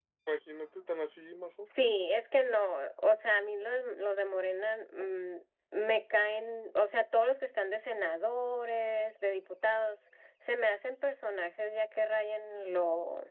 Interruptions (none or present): none